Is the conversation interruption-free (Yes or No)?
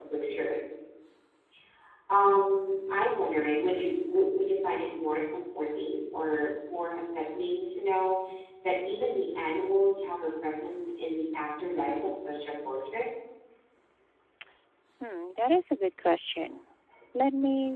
Yes